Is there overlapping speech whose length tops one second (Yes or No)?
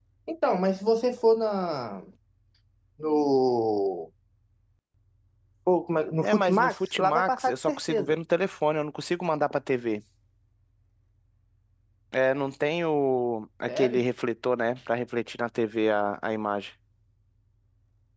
Yes